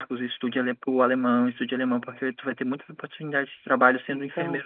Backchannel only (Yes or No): Yes